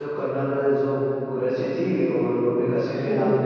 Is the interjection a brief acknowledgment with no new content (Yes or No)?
Yes